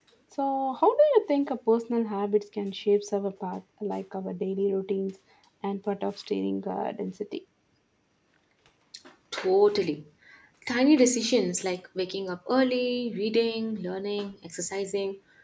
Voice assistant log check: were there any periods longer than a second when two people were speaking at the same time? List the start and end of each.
none

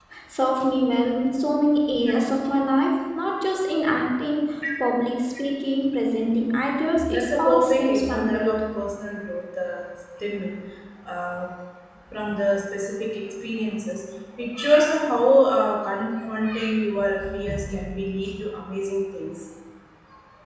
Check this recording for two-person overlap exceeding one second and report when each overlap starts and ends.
7.1-8.5

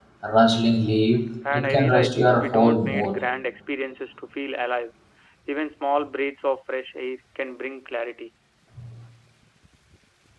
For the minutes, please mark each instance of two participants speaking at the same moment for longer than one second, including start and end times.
1.5-3.2

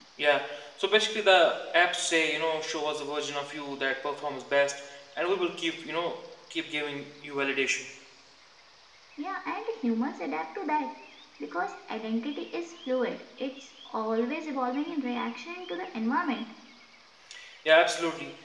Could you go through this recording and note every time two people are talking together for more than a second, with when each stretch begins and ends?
none

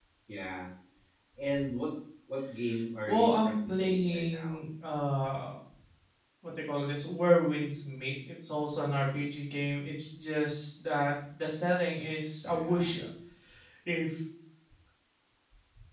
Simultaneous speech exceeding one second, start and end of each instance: 3.1-4.6

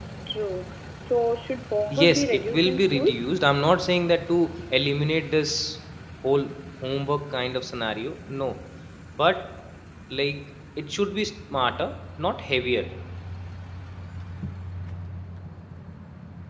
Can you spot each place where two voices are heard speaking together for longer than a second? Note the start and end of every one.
1.9-3.3

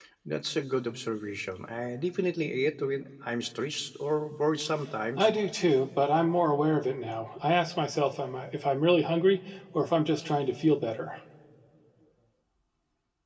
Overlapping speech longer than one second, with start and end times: none

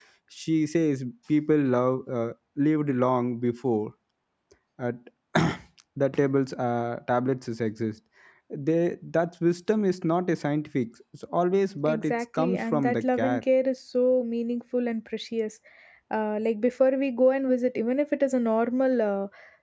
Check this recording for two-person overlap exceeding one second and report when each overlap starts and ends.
11.8-13.4

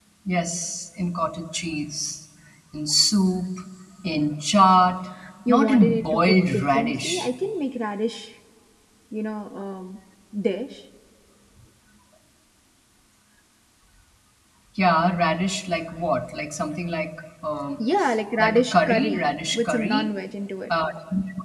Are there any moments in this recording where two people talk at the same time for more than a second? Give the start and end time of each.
5.5-7.3, 18.4-20.1

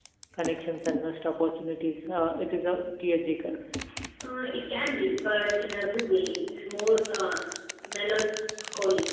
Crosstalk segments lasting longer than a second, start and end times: none

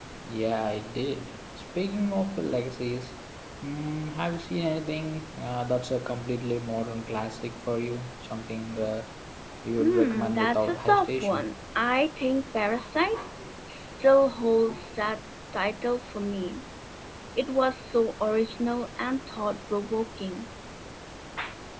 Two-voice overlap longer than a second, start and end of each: 9.8-11.5

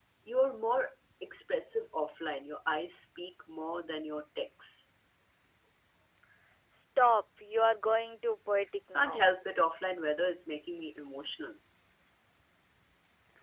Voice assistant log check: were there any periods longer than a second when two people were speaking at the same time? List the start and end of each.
none

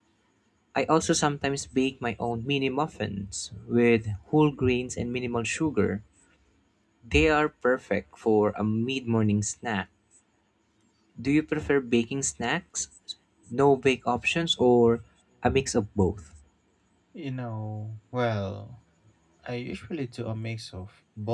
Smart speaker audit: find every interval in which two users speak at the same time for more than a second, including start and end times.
none

